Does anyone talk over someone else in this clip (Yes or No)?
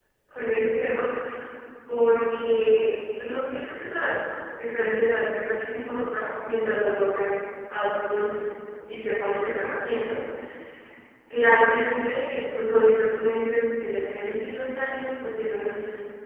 No